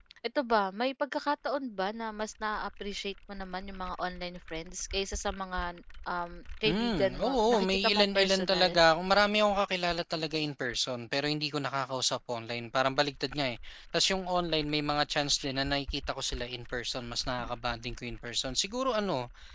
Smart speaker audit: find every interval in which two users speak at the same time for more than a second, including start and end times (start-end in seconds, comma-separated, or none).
6.7-8.8